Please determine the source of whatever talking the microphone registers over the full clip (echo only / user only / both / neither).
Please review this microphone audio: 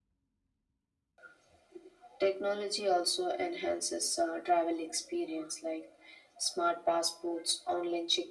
echo only